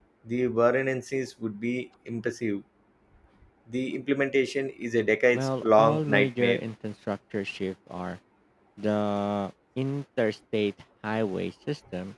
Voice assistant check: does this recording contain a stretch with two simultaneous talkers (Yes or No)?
Yes